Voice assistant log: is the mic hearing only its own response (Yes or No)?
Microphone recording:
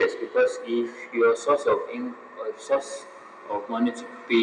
Yes